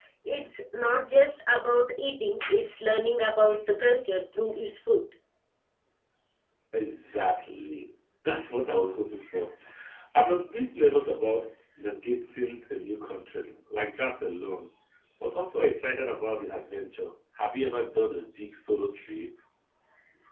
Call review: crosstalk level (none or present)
none